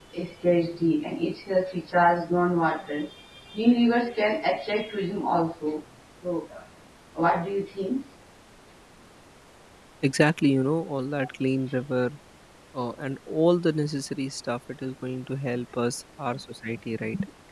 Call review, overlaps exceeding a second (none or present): none